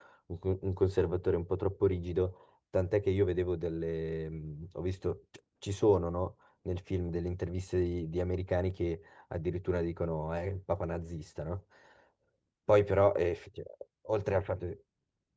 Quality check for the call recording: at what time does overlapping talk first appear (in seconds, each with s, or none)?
none